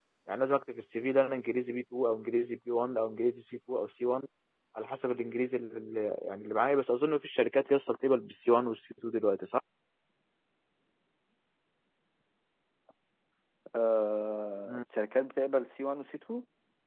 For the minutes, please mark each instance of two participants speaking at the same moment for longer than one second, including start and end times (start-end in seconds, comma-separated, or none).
none